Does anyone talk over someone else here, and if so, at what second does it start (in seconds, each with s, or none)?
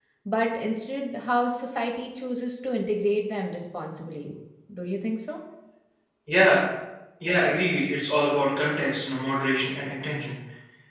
none